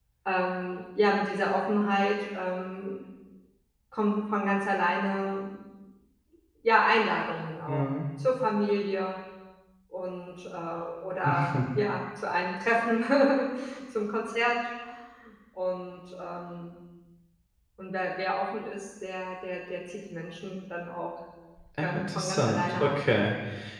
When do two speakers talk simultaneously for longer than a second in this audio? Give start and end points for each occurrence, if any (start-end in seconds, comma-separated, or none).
21.8-23.1